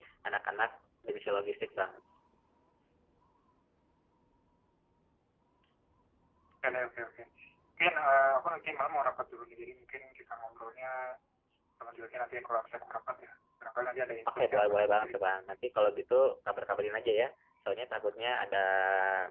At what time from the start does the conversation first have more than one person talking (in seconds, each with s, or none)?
14.2 s